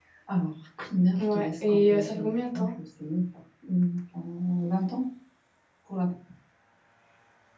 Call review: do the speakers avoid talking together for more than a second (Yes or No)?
No